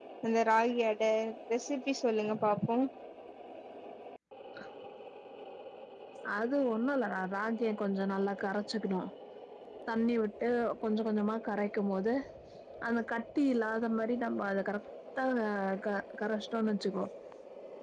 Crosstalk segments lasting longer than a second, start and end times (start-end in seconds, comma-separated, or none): none